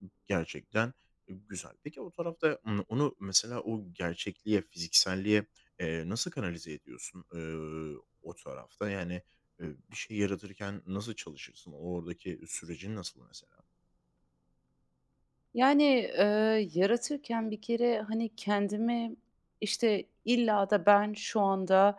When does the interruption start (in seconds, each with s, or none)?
none